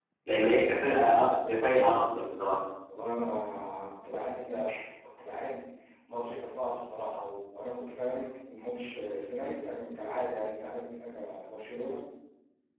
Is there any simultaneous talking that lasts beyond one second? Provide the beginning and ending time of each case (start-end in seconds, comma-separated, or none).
none